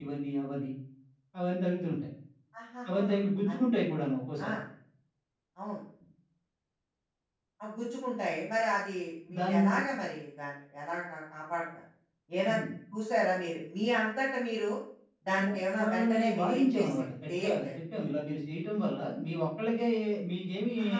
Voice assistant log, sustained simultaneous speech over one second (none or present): present